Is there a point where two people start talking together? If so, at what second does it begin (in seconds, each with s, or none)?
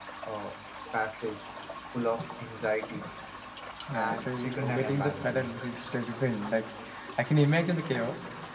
3.9 s